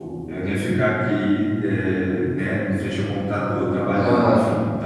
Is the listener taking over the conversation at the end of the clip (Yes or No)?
No